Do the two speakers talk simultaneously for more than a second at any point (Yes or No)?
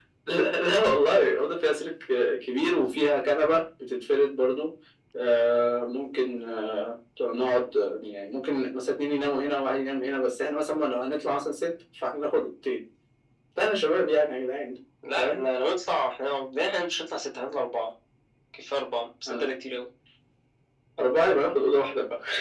No